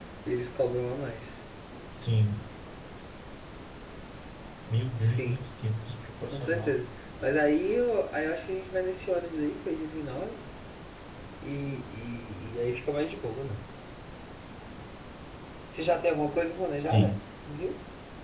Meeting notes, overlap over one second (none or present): none